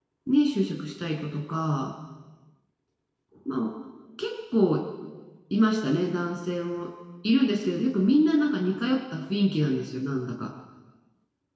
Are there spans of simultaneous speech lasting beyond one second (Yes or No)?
No